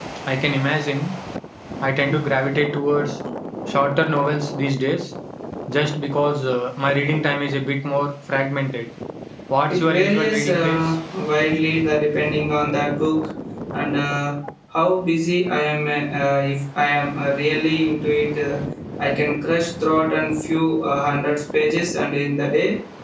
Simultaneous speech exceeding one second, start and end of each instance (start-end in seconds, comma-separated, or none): 9.7-10.9